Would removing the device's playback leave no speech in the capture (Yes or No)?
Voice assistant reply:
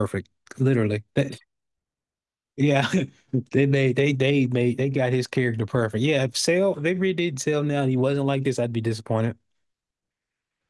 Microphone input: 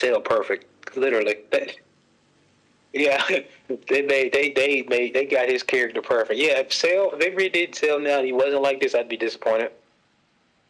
Yes